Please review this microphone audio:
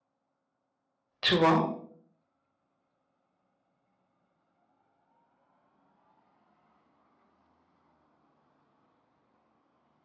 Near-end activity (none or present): present